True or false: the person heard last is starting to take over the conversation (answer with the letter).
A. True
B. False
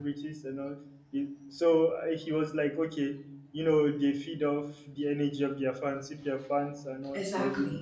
B